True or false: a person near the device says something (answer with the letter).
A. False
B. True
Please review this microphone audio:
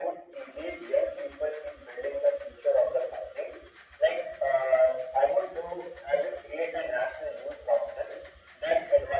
A